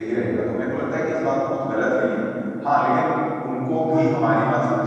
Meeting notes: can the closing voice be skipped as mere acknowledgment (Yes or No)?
Yes